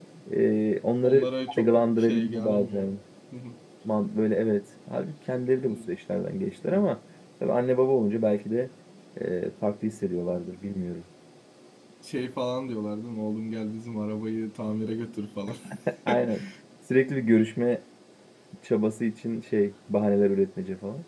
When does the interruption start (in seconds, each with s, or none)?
1.0 s